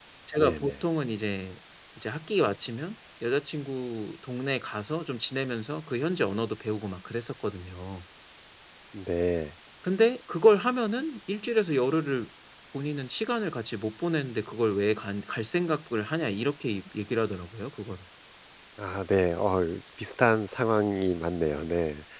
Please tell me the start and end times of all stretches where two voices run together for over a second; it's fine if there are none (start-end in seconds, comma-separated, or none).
none